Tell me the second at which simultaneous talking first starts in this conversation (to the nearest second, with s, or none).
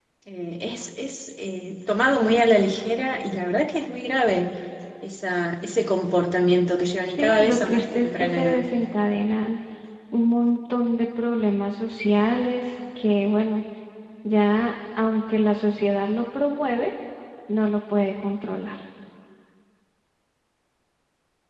7 s